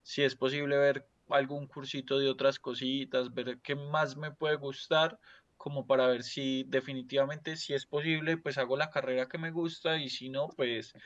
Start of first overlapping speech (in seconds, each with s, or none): none